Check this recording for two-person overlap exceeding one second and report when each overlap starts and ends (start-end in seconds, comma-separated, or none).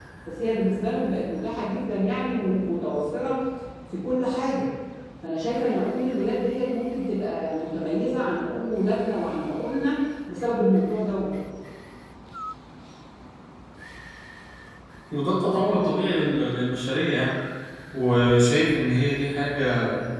none